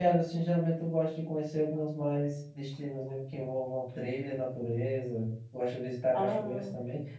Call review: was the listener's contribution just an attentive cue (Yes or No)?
Yes